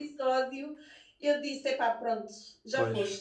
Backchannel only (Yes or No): No